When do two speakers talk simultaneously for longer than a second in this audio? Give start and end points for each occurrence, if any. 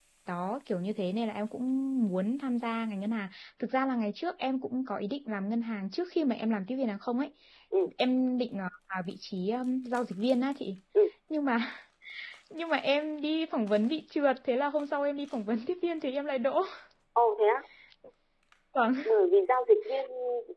none

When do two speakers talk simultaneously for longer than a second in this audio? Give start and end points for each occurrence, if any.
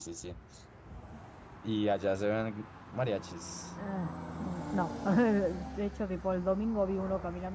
none

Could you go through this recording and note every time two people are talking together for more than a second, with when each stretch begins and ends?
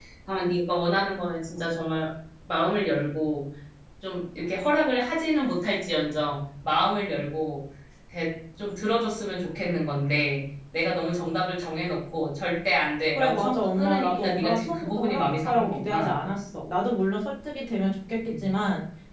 13.2-16.2

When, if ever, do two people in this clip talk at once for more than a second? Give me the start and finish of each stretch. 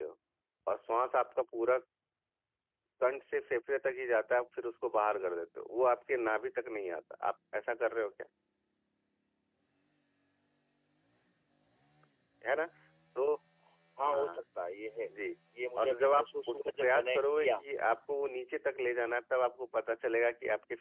15.8-17.6

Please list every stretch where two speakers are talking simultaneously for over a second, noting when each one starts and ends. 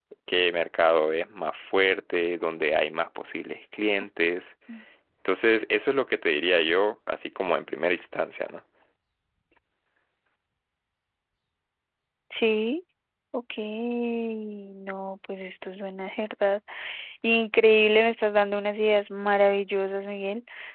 none

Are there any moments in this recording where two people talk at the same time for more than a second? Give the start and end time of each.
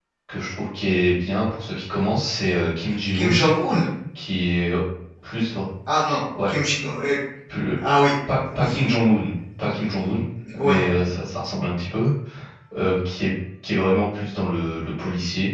none

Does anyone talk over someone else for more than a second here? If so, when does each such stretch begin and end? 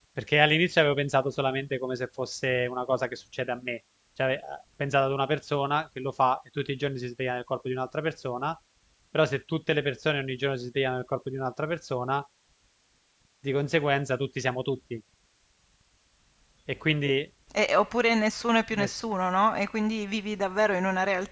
none

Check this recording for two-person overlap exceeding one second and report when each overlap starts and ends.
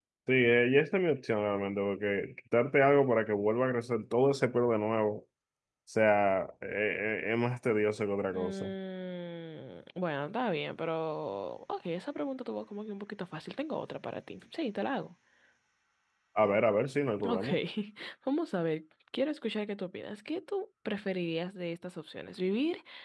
none

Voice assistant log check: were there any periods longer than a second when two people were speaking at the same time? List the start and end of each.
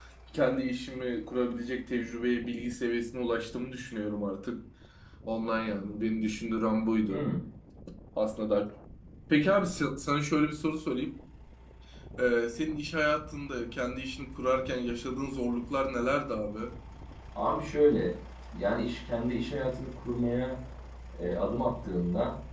none

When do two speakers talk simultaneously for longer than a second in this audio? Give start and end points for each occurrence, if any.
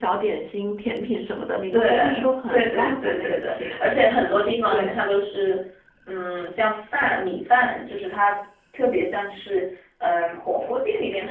1.7-3.9

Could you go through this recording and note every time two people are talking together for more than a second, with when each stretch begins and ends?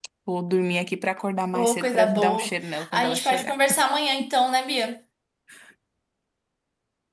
1.5-3.5

